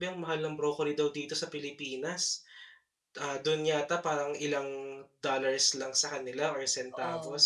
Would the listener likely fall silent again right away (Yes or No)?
Yes